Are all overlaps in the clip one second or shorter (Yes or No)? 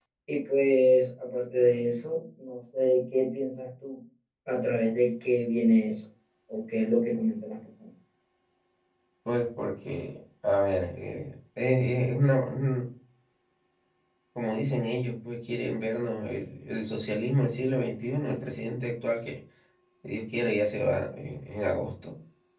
Yes